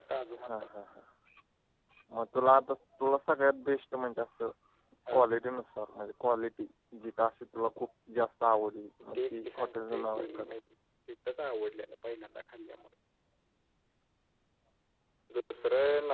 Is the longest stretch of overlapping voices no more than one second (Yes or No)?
No